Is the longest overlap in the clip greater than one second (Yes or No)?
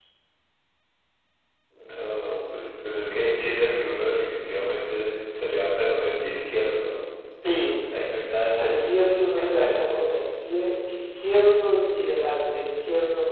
No